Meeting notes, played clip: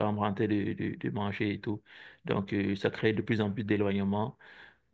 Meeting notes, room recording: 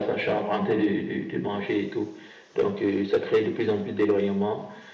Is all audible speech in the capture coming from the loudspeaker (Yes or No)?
Yes